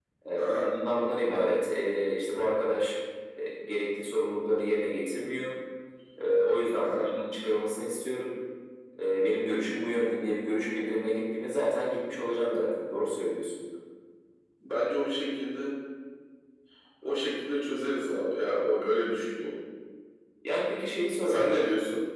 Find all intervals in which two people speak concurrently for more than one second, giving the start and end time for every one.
none

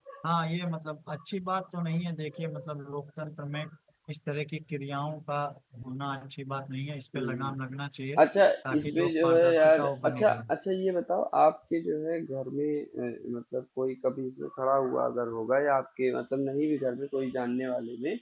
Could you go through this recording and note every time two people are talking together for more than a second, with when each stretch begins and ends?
8.7-10.4

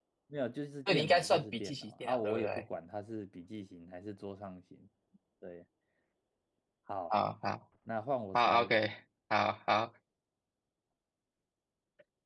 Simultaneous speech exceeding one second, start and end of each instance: 0.9-2.6

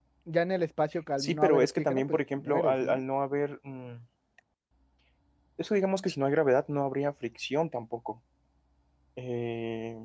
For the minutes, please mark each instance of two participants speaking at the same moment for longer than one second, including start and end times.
1.2-3.0

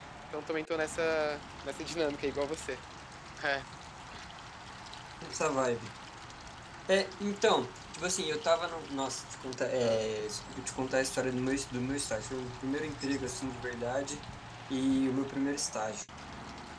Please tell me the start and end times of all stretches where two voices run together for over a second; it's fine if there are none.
none

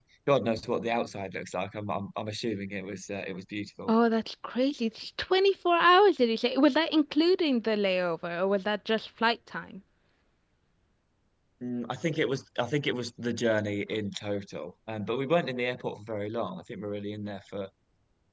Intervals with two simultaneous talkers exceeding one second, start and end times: none

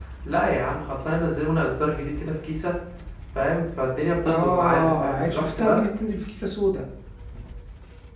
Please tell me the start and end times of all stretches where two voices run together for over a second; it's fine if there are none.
4.3-5.8

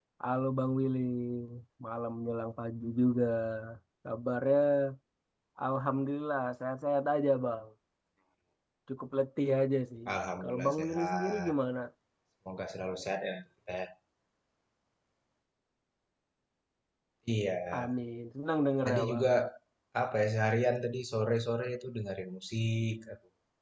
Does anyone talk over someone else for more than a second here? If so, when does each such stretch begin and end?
10.1-11.5

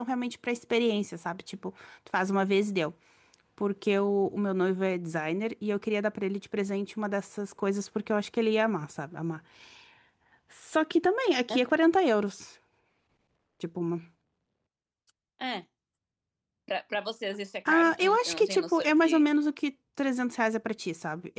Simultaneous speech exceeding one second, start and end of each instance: 17.6-19.3

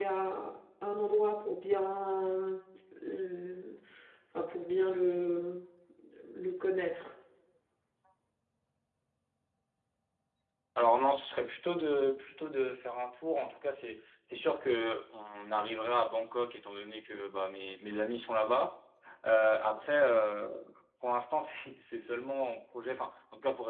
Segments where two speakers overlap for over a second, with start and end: none

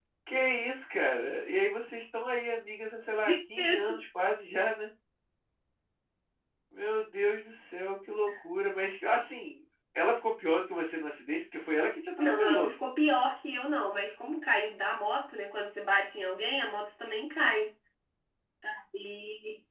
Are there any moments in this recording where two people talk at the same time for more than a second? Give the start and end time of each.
none

